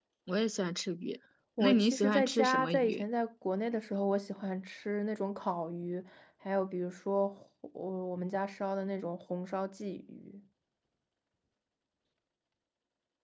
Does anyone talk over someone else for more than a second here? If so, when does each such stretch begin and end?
1.6-3.0

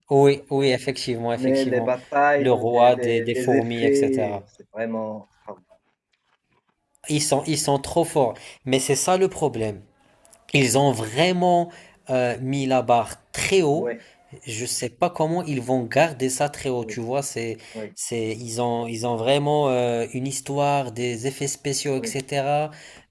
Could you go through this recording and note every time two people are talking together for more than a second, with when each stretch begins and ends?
2.4-4.4

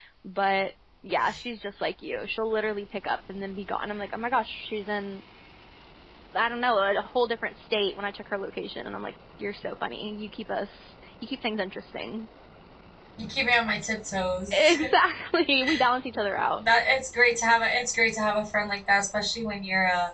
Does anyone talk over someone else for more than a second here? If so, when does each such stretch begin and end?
none

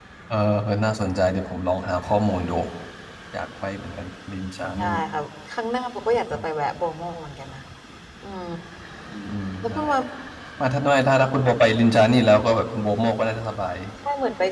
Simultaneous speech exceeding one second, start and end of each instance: none

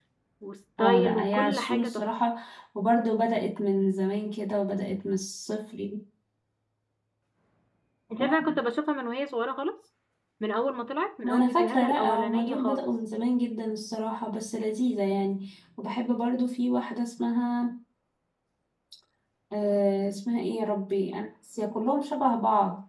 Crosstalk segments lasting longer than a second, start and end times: 0.8-2.0, 11.2-12.8

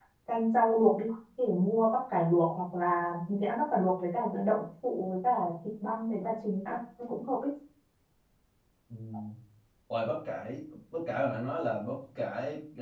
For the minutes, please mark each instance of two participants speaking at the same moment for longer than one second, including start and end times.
none

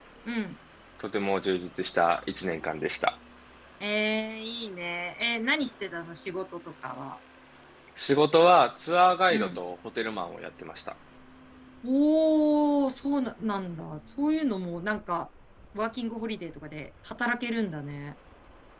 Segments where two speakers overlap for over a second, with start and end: none

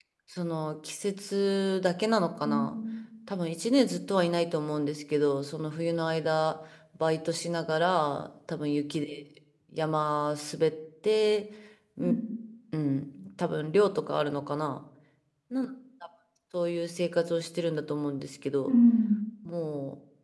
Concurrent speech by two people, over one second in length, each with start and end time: none

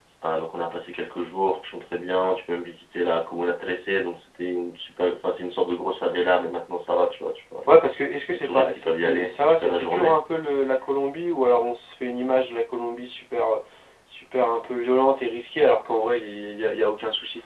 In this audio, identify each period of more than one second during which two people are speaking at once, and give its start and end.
8.3-10.2

